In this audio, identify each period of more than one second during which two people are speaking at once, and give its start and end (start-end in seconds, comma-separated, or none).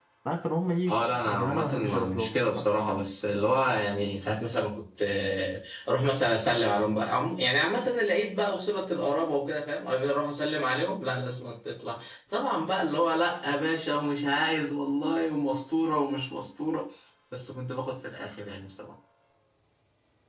0.9-2.7